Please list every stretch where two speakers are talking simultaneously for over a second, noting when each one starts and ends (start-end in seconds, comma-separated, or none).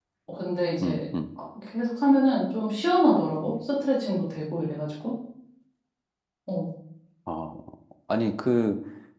none